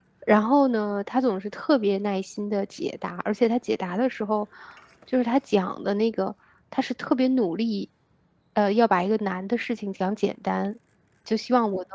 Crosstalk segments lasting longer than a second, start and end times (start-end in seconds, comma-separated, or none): none